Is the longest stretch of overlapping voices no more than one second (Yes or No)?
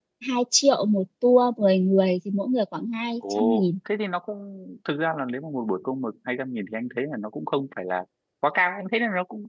Yes